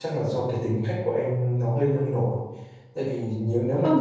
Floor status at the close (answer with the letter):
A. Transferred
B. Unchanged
B